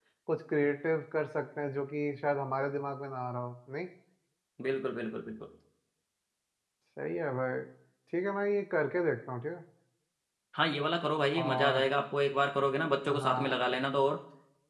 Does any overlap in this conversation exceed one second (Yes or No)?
No